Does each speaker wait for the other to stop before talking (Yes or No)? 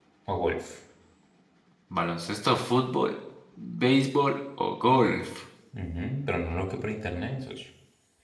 Yes